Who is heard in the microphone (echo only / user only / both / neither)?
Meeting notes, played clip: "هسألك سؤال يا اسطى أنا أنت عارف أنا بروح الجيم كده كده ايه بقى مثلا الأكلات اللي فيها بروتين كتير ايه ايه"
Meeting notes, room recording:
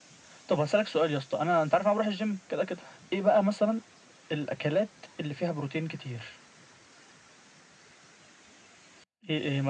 echo only